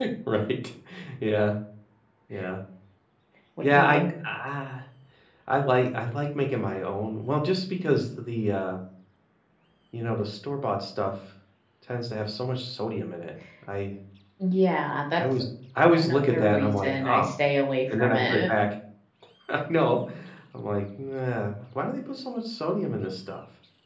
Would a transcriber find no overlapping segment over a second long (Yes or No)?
No